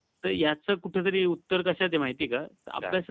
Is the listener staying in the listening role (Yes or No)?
Yes